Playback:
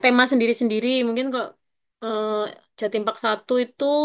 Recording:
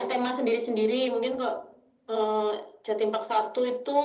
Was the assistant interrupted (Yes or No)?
No